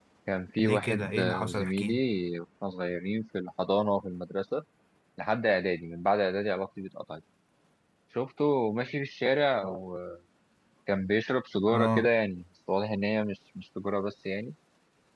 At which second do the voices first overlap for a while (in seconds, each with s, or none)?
0.6 s